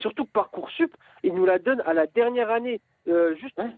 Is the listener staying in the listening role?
Yes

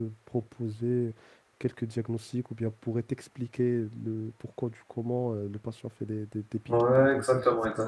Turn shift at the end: Yes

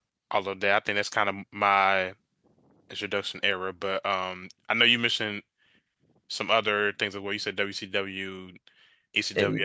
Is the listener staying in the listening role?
Yes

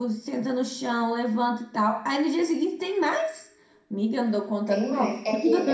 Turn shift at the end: Yes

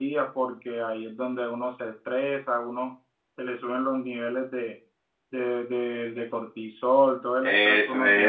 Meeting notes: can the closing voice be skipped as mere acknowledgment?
No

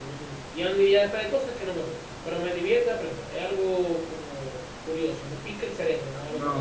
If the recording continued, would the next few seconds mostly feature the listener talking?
Yes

